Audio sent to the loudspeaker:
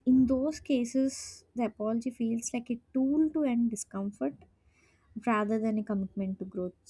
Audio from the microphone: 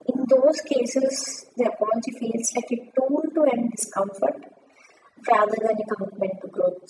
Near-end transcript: none

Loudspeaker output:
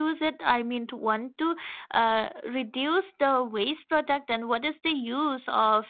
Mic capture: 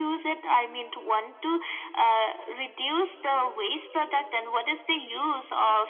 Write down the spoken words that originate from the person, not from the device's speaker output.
none

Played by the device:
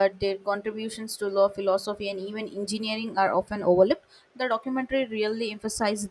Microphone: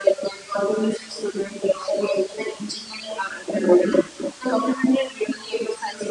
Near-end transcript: none

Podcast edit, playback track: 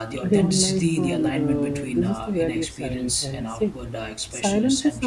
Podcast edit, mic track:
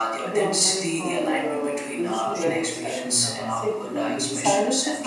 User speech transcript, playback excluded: social protection uh, through ambiguity.

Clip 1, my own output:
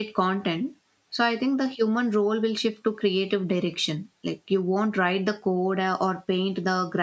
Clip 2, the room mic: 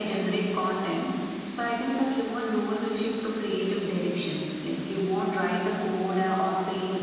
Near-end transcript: none

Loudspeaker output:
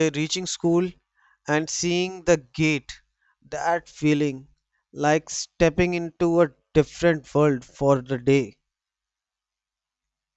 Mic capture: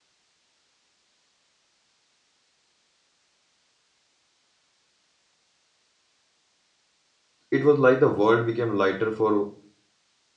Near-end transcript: it was like the world became lighter for

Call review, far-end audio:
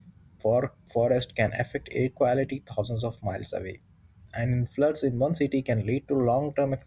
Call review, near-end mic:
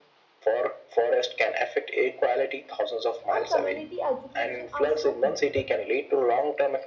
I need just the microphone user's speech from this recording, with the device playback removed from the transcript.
and community education are so critical.

